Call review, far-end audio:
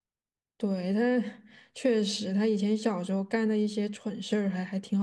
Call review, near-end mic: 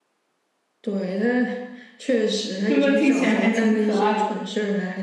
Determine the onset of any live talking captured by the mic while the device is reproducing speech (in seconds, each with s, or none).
2.7 s